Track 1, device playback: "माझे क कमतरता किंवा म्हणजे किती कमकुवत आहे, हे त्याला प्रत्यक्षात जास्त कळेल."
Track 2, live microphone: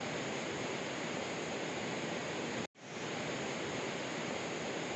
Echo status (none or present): none